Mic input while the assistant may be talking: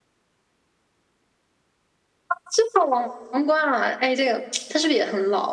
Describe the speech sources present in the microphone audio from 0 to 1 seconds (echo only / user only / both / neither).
neither